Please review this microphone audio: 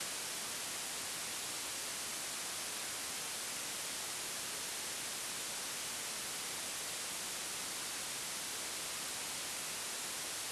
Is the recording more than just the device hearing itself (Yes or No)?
No